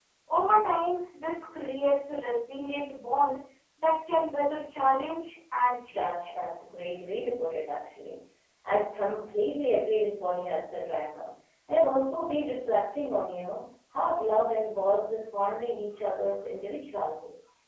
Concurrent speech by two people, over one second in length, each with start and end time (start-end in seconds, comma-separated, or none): none